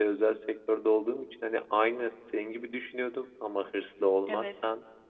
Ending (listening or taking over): listening